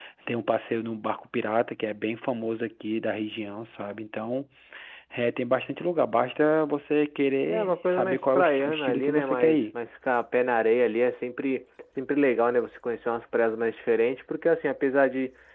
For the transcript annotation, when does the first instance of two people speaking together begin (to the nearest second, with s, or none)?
7 s